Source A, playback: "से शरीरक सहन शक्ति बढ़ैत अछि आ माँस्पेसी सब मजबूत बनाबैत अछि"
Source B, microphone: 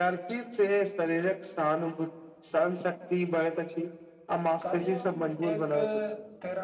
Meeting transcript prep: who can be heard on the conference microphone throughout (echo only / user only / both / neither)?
both